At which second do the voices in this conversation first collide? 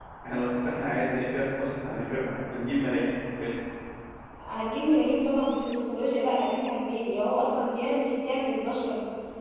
none

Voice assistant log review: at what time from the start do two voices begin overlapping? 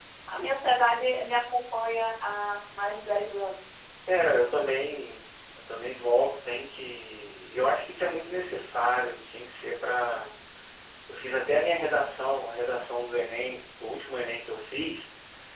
none

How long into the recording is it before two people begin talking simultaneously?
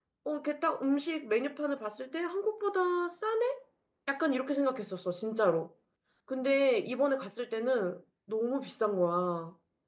none

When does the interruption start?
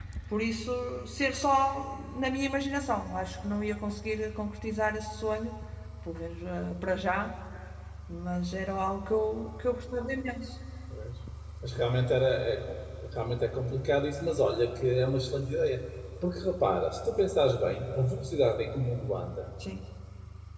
none

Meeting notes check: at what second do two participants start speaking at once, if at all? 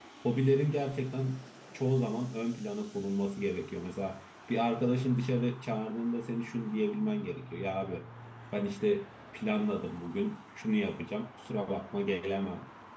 none

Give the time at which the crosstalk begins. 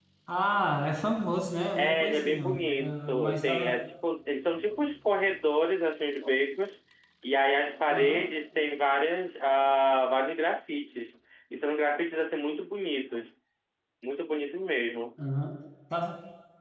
1.8 s

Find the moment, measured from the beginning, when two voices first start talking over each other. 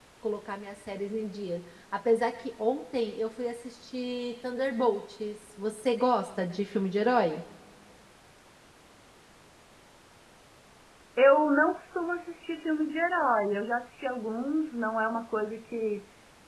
none

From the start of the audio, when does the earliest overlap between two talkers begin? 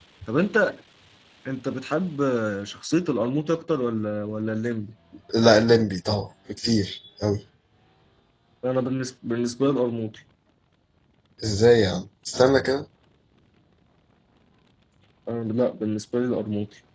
none

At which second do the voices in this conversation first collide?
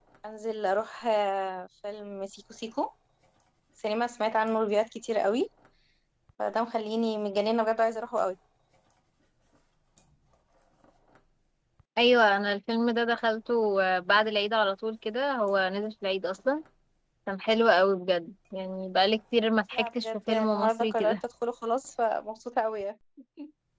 19.7 s

